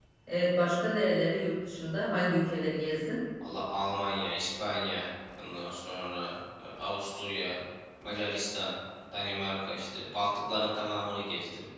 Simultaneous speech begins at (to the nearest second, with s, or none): none